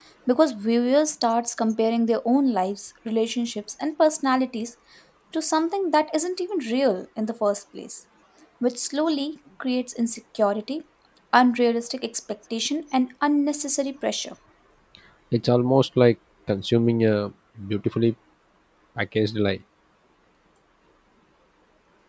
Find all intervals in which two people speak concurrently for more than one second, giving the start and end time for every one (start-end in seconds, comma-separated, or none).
none